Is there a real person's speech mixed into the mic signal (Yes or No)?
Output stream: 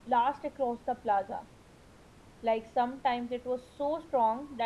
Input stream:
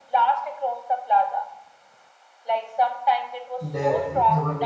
Yes